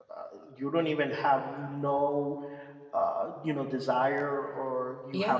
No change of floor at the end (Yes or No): Yes